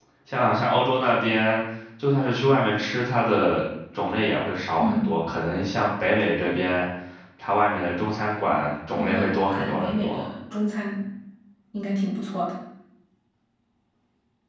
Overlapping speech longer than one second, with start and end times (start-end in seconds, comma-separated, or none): 9.0-10.3